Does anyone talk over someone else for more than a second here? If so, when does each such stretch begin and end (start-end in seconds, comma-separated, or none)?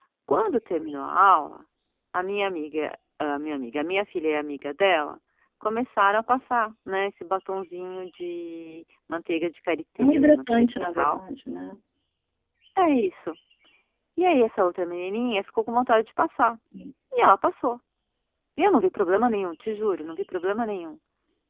10.0-11.2